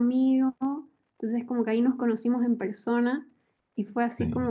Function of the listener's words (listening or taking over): listening